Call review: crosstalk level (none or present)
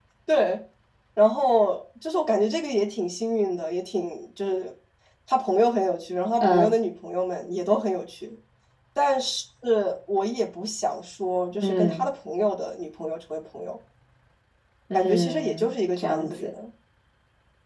present